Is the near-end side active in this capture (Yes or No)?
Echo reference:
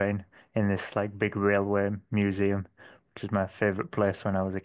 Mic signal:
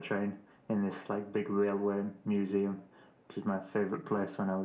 No